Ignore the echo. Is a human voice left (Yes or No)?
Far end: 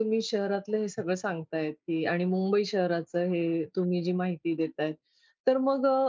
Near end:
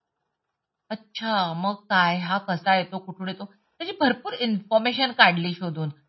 Yes